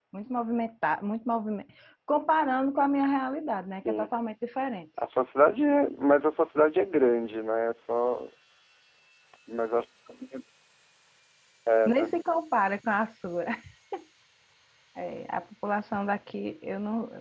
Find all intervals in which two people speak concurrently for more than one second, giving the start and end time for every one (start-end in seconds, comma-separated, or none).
none